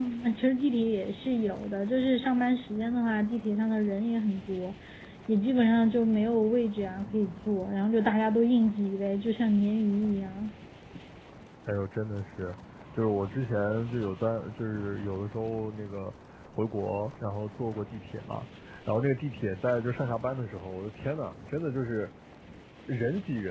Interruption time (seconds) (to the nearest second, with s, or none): none